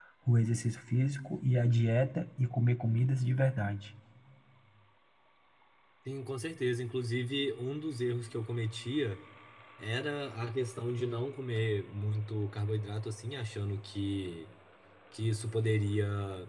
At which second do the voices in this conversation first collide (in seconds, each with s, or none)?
none